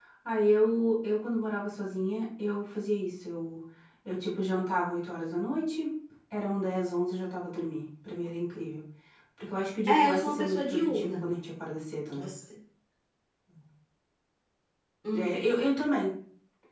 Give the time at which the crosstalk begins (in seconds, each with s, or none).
9.9 s